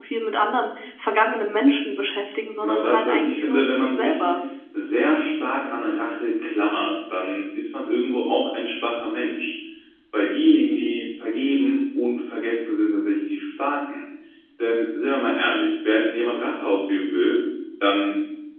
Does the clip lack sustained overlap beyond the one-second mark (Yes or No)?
No